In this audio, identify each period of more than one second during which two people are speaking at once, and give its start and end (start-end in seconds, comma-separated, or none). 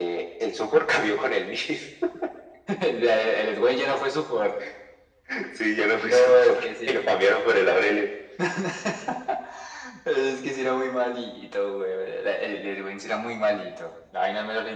6.0-7.2